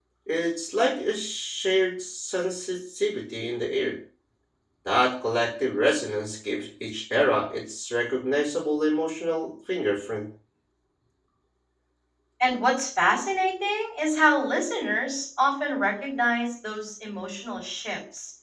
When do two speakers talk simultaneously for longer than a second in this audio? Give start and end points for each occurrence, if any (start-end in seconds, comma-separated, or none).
none